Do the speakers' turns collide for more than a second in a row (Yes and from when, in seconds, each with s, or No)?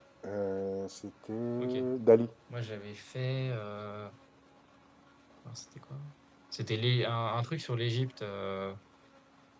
No